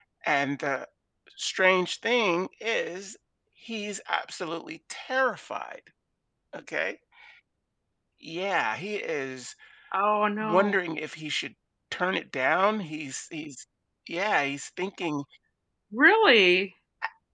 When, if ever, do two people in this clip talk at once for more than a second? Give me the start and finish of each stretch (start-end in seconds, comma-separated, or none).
none